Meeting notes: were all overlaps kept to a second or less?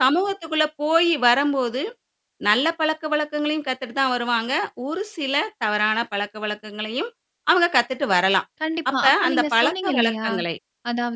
No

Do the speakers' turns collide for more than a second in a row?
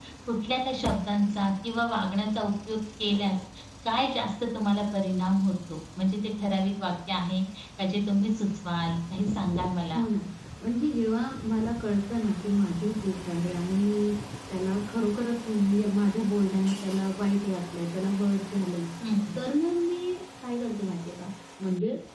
No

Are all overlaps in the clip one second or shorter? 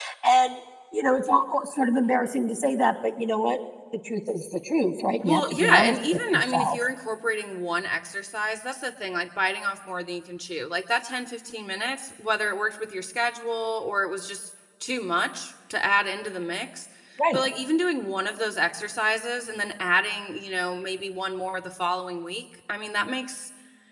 No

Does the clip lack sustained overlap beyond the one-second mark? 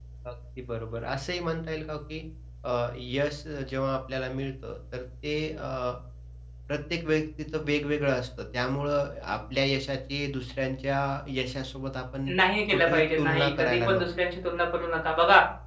No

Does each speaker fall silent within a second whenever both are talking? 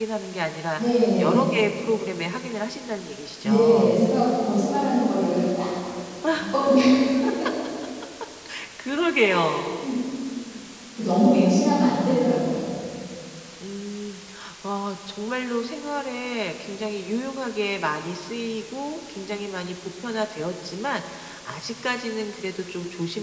Yes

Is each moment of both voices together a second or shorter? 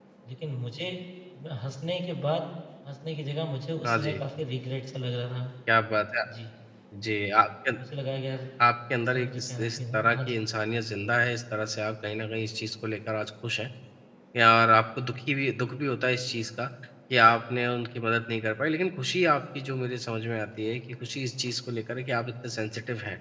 No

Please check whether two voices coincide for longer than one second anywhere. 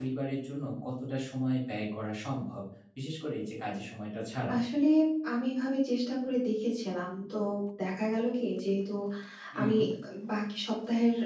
No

